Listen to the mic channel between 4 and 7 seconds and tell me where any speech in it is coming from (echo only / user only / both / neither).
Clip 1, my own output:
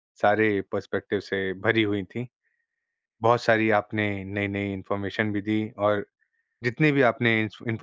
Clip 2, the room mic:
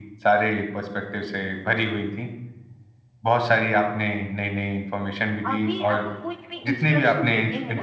both